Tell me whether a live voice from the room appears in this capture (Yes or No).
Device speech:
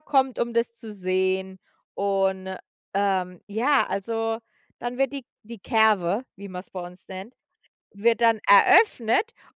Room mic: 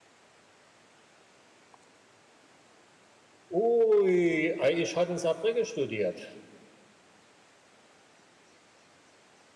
Yes